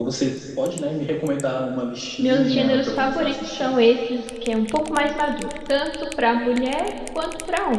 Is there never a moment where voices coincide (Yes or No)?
No